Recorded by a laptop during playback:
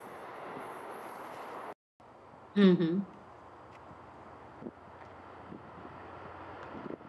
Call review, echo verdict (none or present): none